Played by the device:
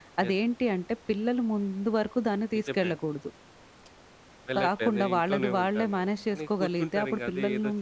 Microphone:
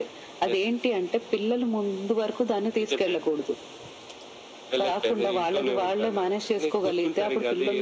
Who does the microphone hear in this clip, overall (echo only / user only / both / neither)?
echo only